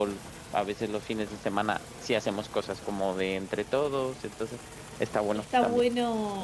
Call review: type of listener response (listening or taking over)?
taking over